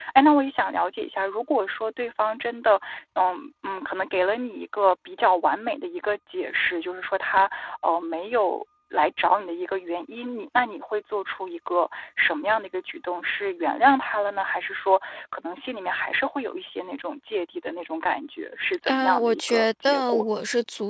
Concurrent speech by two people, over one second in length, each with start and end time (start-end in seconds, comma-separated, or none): 18.9-20.2